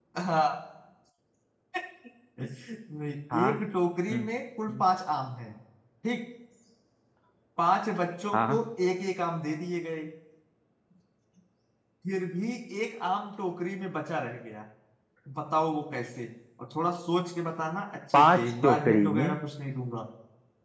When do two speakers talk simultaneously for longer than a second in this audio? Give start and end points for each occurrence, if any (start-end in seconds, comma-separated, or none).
18.1-19.4